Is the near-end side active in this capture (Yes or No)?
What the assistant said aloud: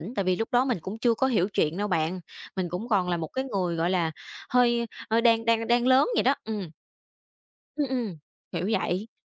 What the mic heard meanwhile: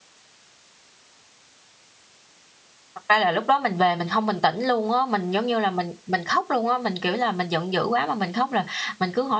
Yes